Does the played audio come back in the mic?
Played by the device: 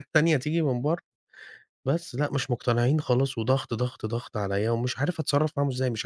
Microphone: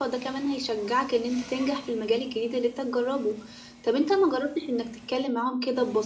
No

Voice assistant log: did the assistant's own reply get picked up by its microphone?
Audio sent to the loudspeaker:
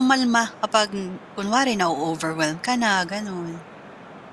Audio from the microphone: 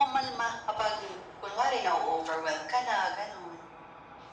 Yes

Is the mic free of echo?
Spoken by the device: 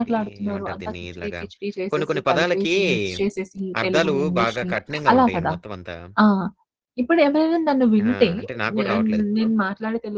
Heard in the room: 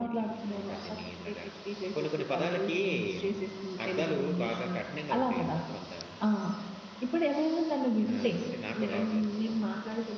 No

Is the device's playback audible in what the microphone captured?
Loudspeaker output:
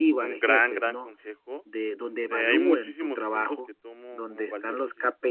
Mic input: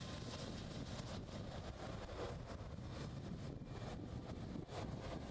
No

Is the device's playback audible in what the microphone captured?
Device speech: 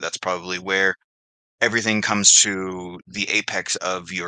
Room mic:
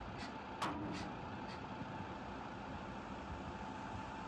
No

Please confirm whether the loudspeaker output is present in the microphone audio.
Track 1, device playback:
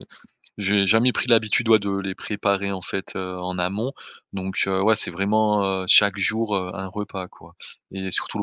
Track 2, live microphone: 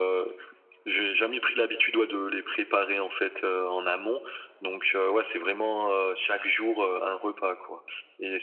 Yes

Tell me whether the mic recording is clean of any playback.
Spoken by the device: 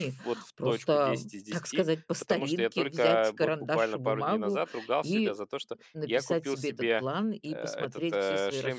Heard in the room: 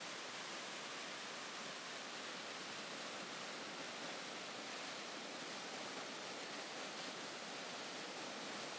Yes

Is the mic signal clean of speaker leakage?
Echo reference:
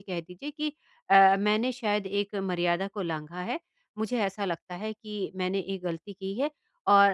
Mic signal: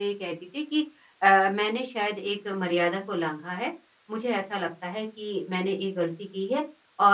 No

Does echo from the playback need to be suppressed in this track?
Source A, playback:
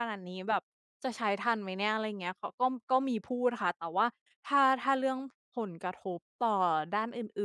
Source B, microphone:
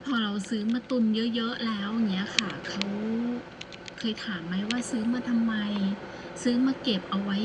No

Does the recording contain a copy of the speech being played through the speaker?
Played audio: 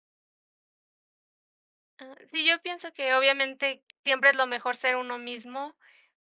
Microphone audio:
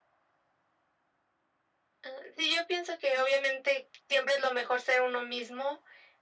Yes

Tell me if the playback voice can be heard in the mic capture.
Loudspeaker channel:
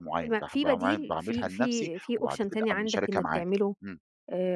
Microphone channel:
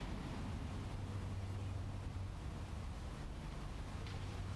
No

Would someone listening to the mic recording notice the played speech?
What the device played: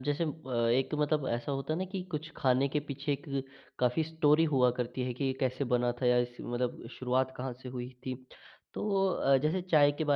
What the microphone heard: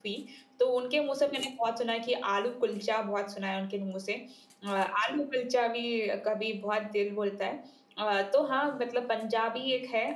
No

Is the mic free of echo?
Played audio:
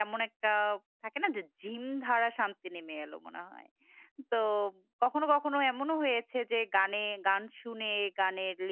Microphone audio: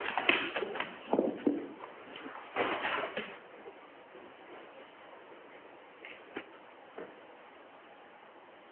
Yes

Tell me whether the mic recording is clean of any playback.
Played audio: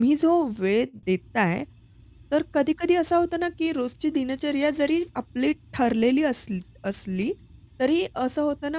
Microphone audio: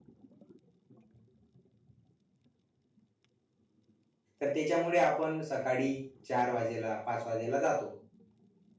Yes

